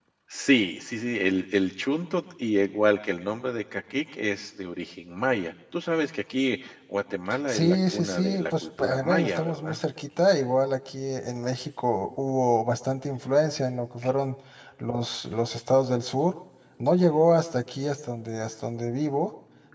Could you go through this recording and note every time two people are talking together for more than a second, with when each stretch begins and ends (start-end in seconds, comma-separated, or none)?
7.5-9.8